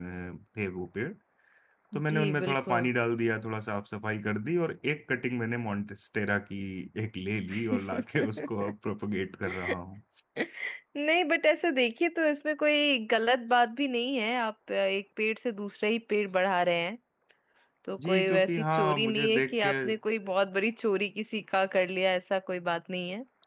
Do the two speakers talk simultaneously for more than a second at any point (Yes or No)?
Yes